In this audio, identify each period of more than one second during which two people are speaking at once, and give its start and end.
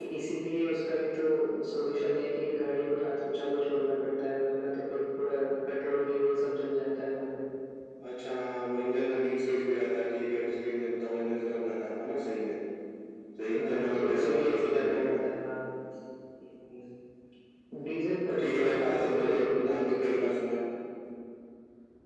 13.6-15.2, 18.3-20.2

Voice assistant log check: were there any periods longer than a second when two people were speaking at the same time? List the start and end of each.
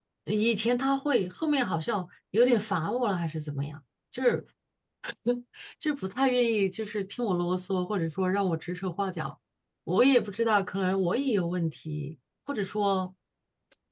none

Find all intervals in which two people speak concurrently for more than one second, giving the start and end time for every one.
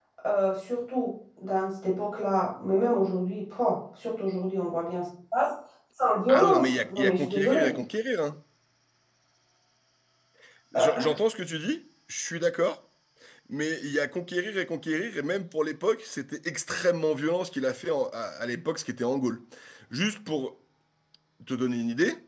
6.3-7.7

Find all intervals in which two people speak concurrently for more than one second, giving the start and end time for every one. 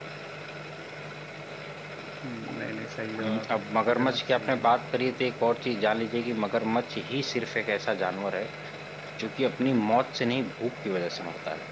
3.2-4.8

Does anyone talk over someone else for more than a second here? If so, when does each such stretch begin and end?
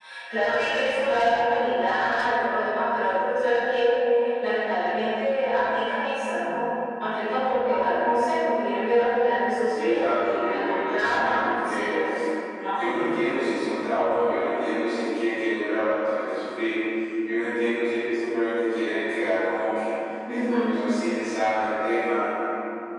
9.7-11.9

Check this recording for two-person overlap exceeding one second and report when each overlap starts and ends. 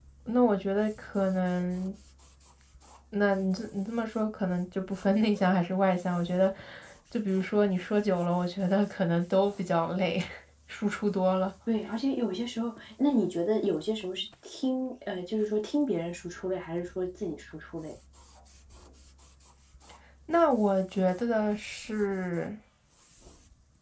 none

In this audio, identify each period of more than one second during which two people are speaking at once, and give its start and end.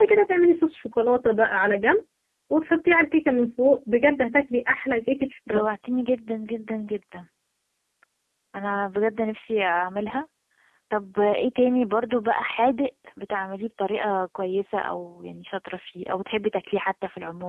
none

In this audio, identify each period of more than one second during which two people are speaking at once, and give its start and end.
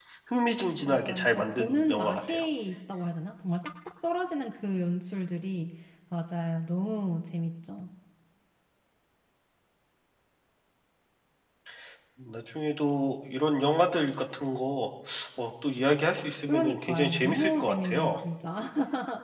0.8-2.4, 16.5-18.2

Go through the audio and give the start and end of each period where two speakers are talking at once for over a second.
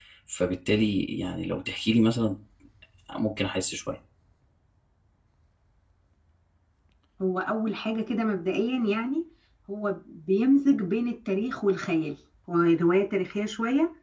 none

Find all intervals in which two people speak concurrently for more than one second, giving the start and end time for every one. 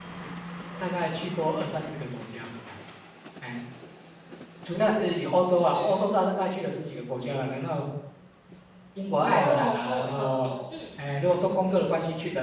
9.2-10.5

